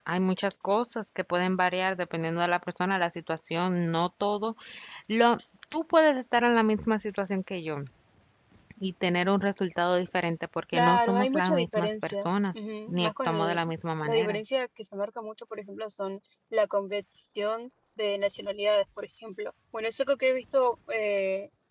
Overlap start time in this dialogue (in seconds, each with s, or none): 10.7 s